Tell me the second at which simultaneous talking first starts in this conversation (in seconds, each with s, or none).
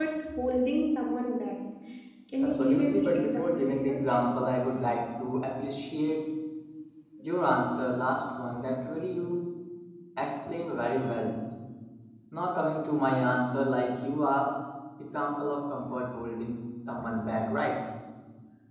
2.4 s